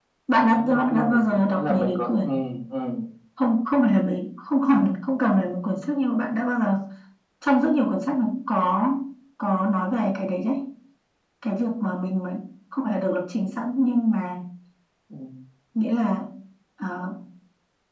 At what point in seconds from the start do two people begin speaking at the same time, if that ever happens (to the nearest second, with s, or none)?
1 s